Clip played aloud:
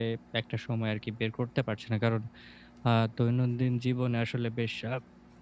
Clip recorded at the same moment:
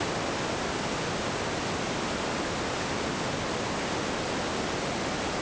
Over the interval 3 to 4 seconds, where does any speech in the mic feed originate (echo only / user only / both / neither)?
neither